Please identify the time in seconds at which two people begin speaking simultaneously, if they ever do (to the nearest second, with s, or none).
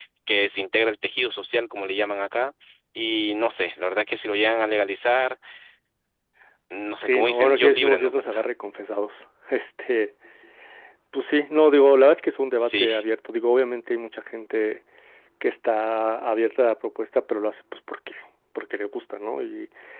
7 s